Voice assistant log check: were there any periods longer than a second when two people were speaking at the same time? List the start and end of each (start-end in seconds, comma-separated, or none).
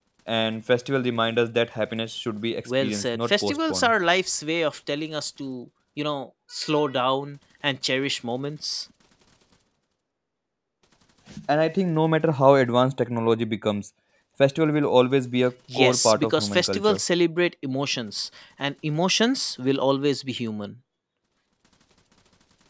2.6-3.9, 15.7-17.0